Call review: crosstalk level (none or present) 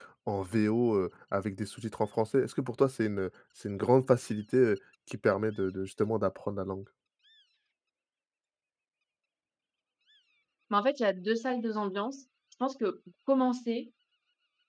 none